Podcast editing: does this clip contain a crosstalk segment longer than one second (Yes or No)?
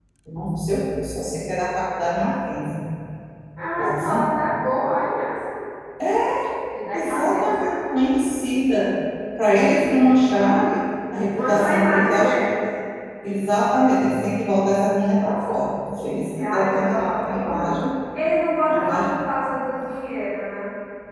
Yes